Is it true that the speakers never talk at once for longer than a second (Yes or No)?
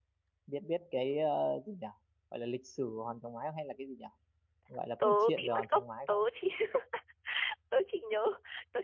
No